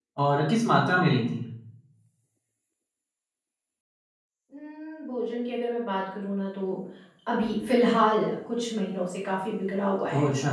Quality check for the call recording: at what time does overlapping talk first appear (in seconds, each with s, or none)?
none